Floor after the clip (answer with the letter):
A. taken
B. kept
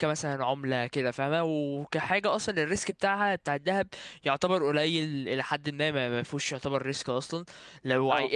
B